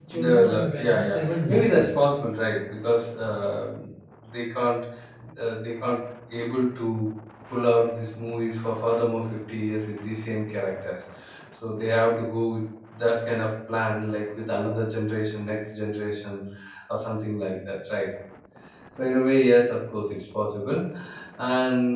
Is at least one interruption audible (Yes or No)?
Yes